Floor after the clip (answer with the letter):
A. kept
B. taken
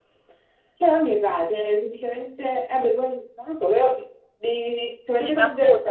B